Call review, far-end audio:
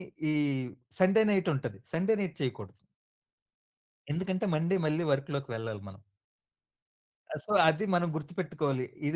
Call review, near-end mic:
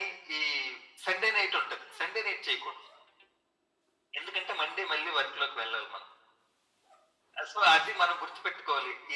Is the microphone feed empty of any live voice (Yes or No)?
Yes